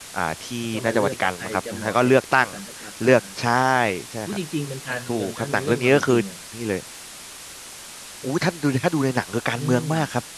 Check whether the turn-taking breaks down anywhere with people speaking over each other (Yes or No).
Yes